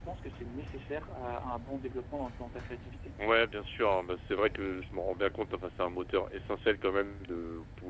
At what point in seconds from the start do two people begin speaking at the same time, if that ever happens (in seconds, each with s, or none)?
none